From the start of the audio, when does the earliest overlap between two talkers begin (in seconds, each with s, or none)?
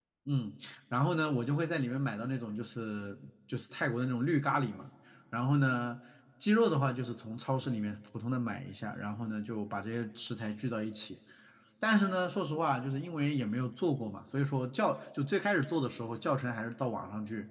none